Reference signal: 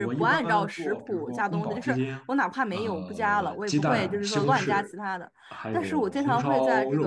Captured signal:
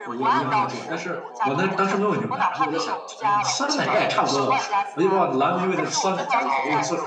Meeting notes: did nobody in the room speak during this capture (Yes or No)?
No